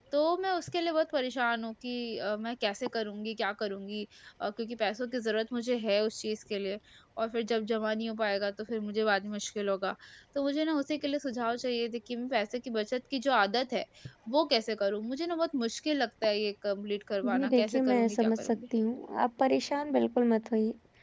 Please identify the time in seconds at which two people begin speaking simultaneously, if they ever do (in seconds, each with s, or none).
17.2 s